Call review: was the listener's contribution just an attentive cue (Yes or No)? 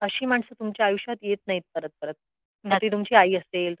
Yes